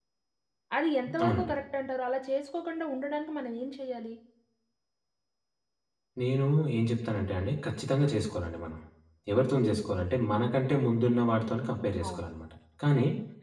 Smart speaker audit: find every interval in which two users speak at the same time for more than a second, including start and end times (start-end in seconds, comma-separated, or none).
none